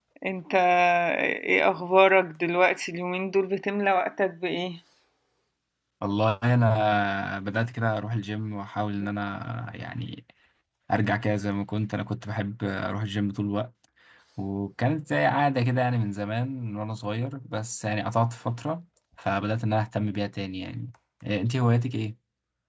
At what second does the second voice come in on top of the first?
none

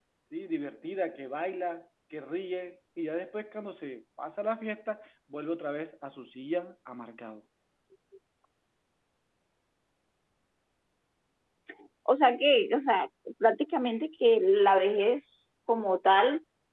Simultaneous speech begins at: none

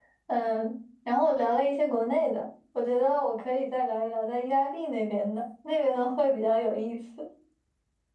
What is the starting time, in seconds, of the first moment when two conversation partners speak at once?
none

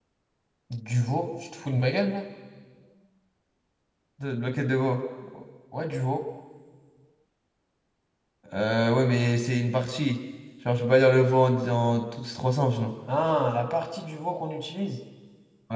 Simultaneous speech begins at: none

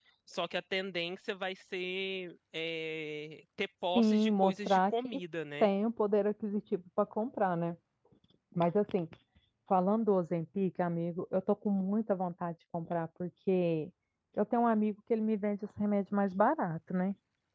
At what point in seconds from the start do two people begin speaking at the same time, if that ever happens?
3.9 s

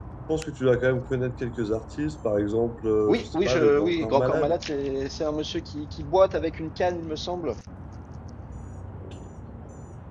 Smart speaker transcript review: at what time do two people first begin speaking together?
3.1 s

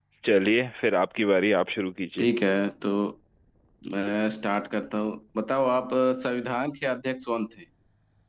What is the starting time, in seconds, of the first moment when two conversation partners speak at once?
none

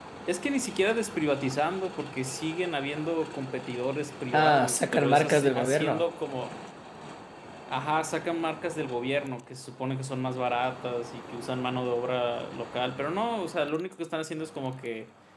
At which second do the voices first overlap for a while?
4.3 s

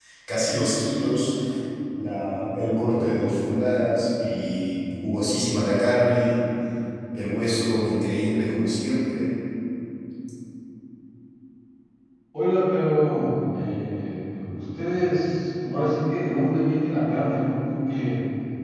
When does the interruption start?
none

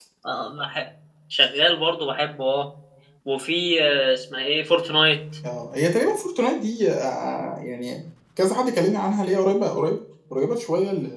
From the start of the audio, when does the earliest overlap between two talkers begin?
none

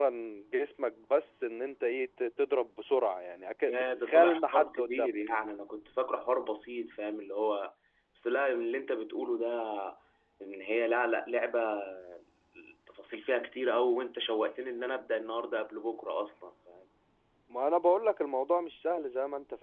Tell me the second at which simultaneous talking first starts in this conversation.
3.7 s

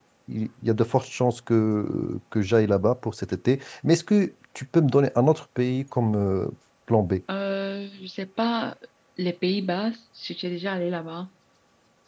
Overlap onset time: none

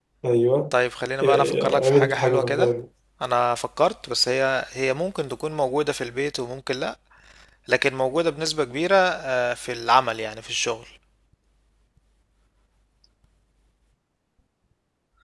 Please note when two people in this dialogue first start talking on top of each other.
1.3 s

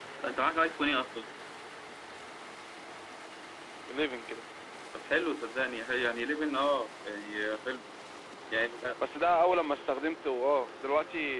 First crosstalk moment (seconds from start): none

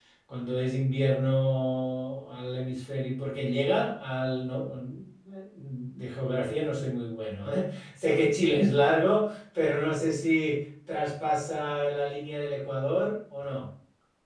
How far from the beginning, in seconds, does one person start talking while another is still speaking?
none

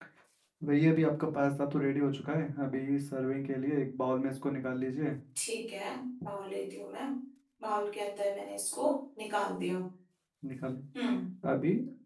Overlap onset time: none

